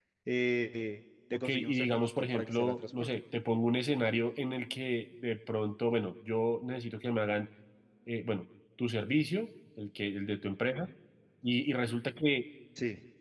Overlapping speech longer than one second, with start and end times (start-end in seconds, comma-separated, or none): 1.3-3.1